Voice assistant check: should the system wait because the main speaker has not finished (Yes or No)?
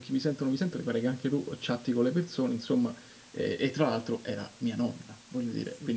No